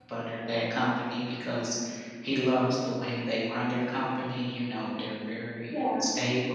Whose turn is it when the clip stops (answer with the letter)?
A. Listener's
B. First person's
B